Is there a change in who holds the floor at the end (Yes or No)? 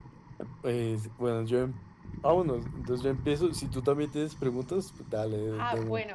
Yes